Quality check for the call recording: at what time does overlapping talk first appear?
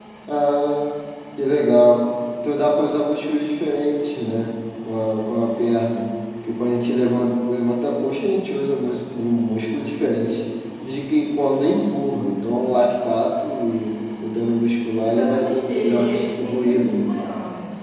15 s

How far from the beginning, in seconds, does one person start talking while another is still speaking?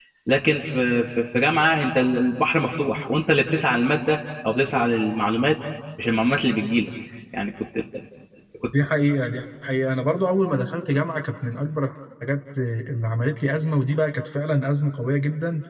none

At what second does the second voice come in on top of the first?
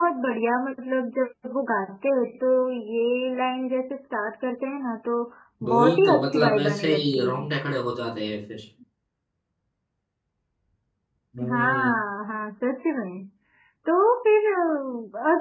6 s

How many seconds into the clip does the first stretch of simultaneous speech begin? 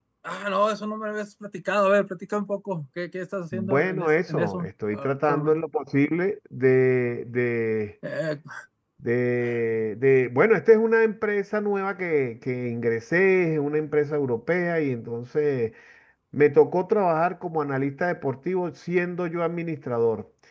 4 s

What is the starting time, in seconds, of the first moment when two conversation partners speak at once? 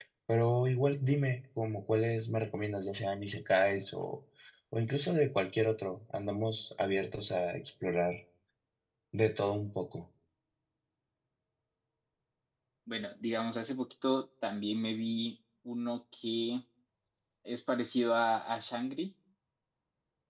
none

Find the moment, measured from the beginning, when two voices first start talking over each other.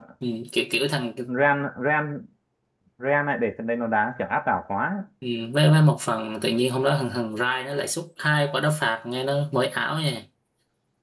none

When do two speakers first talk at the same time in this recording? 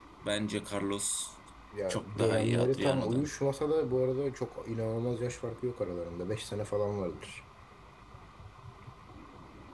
2 s

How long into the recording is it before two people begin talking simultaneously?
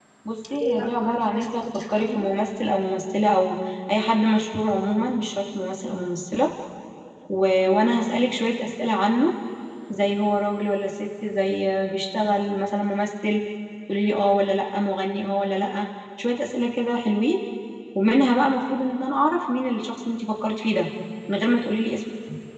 1 s

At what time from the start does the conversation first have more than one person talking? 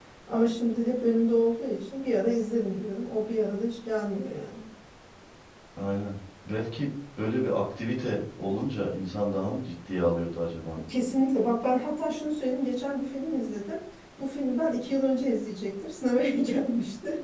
none

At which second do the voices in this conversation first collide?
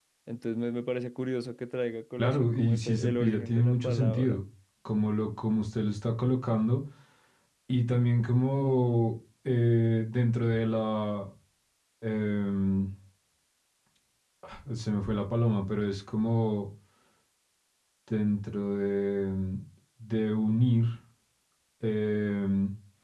2 s

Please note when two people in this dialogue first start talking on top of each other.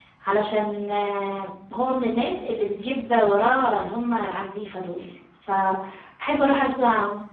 none

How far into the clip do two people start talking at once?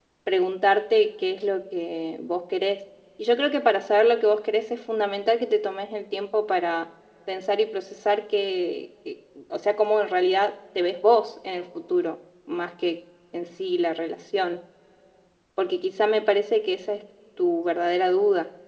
none

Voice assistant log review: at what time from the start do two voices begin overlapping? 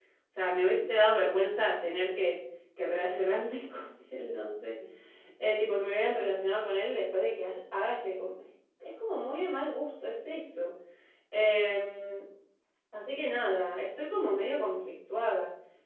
none

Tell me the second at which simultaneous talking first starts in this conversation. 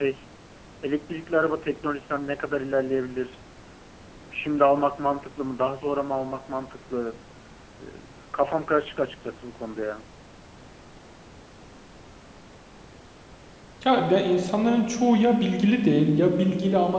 none

